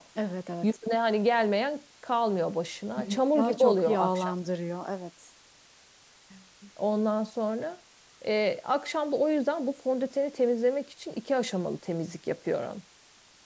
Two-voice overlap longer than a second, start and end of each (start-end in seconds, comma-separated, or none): 3.0-4.3